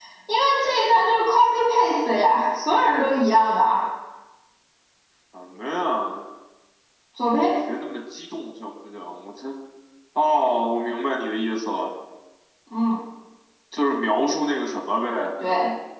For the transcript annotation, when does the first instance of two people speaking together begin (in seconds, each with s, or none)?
none